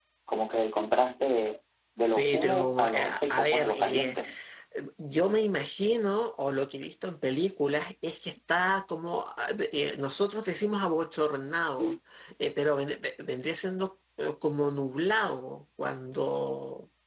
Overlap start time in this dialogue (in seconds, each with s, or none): 2.2 s